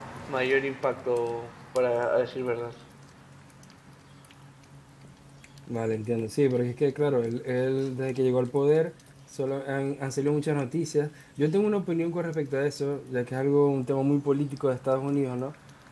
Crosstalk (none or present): none